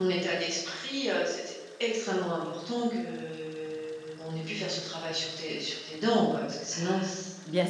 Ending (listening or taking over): taking over